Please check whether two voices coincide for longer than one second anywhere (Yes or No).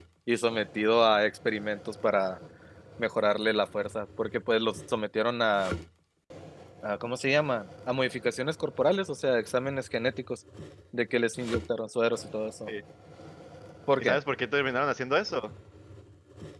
No